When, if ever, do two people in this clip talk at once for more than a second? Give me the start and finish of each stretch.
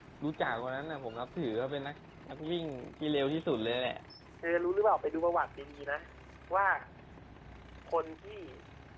none

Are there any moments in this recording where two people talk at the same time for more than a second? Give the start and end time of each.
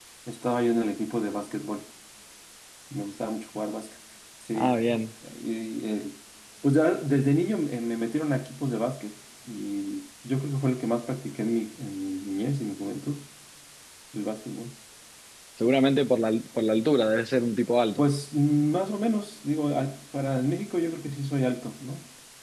none

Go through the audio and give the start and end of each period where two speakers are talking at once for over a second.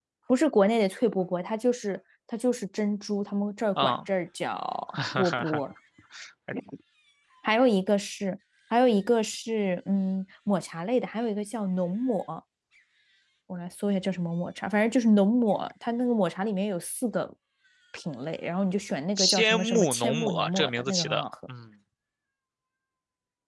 19.2-21.2

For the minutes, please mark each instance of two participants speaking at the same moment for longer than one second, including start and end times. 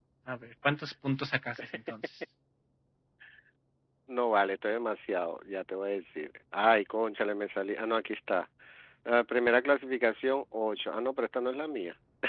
none

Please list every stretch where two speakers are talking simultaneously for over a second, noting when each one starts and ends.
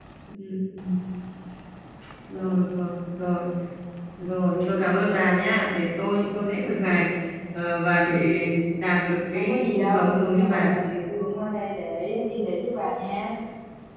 9.3-10.7

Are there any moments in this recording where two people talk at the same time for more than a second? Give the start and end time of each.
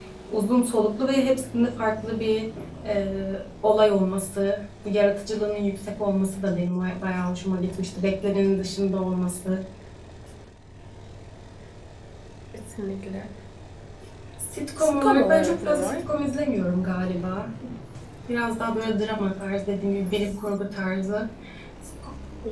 14.8-16.0

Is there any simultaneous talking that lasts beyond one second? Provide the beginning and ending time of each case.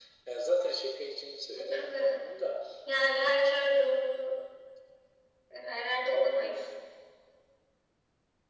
none

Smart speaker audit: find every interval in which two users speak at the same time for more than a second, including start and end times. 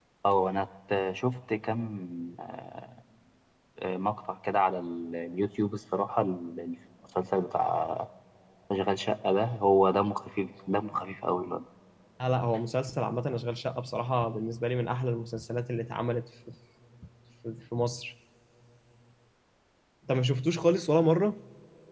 none

